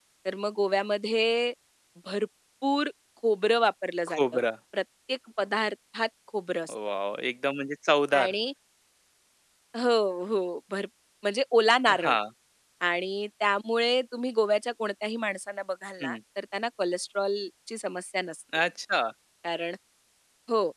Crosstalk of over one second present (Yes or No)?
No